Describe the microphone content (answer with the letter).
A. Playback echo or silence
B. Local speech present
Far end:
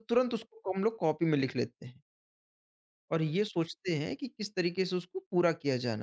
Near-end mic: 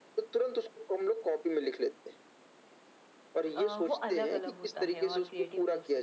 B